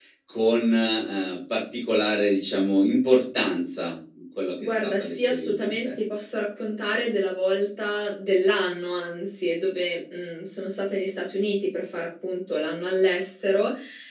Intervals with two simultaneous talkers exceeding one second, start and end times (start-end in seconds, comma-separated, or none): 4.6-5.8